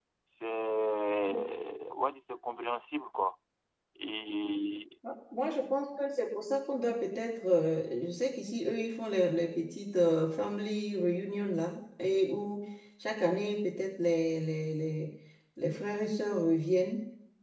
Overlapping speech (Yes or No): No